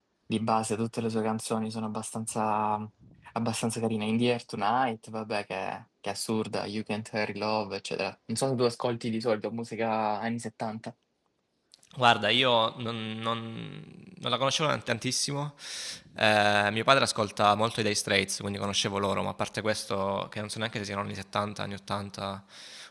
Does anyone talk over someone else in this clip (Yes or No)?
No